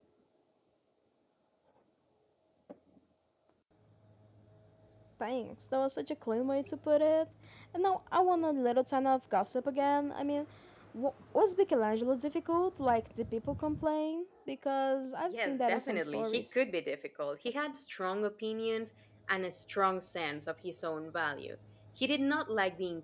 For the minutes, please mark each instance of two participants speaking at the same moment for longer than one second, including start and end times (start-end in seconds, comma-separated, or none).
15.3-16.6